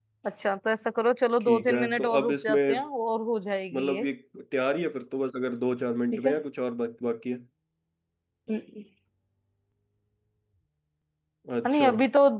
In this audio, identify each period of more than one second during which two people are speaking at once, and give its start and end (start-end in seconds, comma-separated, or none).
1.4-2.8